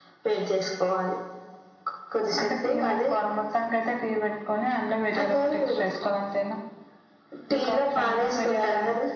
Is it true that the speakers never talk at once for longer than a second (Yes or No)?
No